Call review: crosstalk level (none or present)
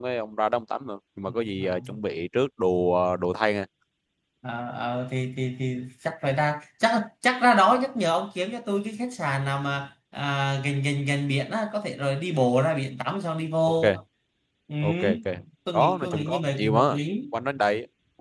present